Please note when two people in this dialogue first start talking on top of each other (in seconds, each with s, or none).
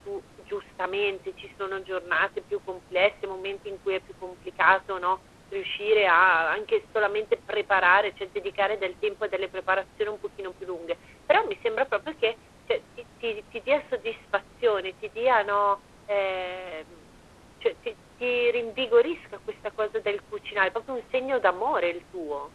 none